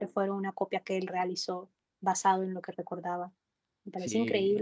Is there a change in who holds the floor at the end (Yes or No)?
Yes